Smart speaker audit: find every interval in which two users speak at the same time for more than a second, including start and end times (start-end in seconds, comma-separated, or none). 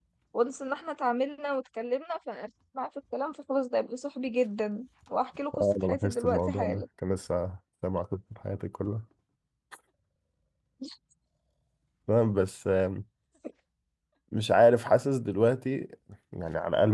5.6-6.8